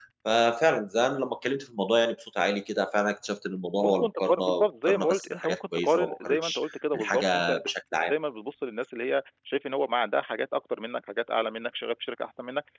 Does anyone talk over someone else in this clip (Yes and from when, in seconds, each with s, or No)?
Yes, from 3.8 s